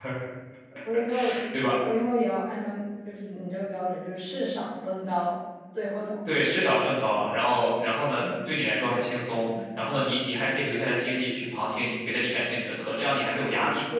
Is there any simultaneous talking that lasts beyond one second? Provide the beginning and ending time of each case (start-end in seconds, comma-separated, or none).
none